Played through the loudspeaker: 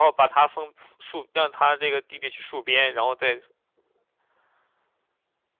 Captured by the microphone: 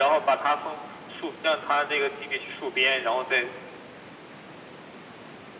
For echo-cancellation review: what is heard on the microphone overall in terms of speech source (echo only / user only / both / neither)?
echo only